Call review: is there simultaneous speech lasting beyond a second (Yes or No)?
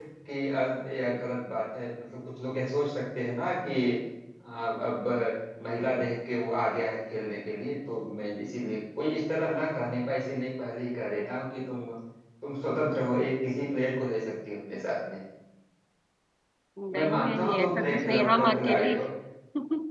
Yes